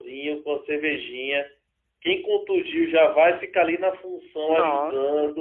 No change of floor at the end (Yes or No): Yes